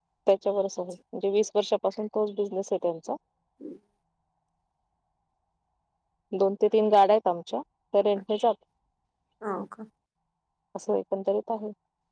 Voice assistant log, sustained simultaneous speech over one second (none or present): none